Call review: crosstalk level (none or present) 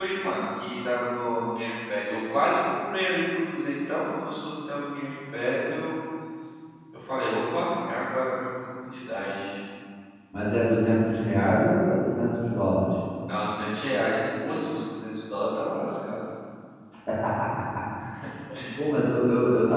none